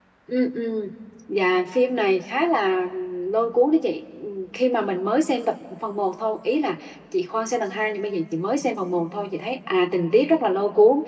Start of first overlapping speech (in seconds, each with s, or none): none